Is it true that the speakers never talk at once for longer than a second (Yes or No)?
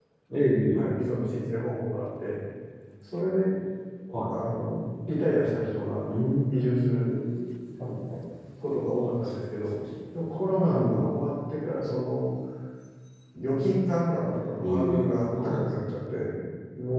No